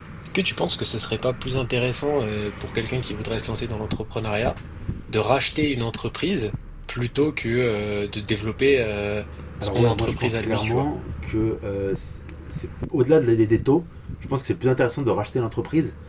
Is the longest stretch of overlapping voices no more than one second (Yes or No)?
No